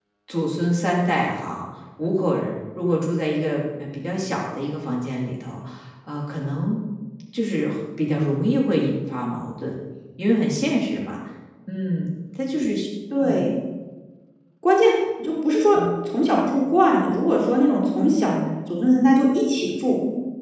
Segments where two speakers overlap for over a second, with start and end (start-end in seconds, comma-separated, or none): none